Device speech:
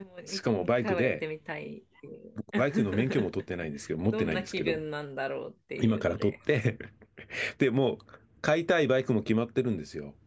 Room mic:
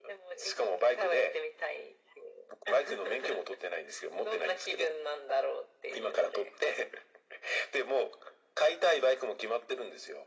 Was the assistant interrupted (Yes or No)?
No